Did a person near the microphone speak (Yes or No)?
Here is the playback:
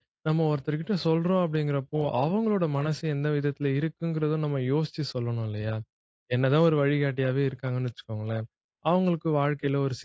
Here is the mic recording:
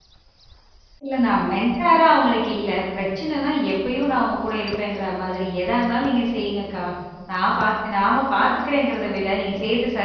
Yes